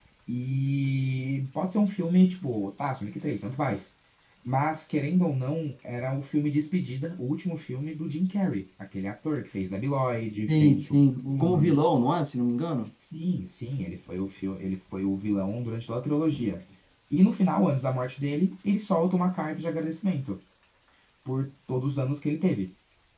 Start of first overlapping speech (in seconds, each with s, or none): 10.5 s